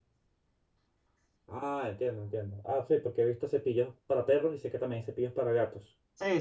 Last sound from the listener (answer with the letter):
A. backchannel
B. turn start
B